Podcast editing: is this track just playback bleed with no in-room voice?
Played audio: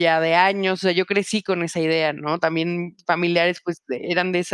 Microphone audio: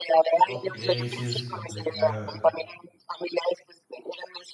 No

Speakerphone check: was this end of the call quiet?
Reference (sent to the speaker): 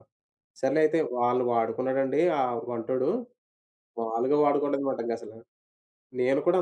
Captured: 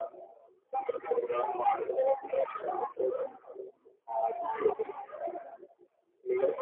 Yes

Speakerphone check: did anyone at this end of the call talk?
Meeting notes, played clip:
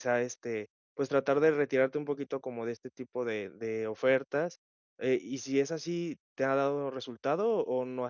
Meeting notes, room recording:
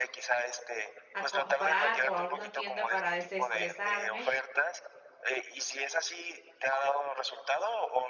Yes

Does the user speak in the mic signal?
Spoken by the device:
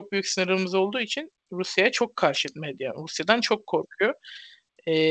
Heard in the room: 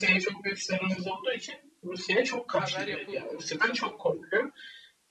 Yes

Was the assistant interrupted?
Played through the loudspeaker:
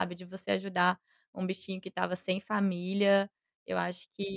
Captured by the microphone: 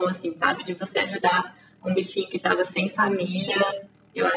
No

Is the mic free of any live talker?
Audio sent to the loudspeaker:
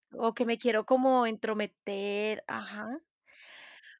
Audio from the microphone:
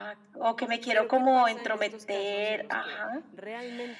No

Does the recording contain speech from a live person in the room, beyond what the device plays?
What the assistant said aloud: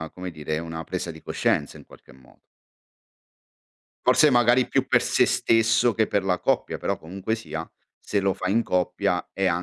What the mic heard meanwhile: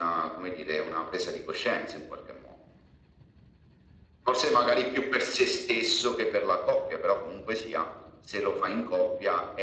No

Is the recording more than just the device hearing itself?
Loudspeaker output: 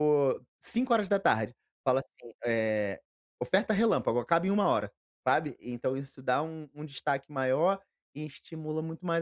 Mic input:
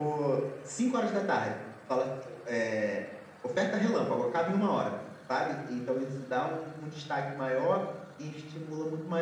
No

